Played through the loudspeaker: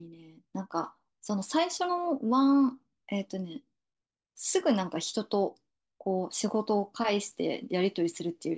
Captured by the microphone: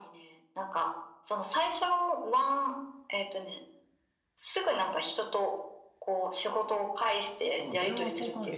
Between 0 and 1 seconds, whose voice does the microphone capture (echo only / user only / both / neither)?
echo only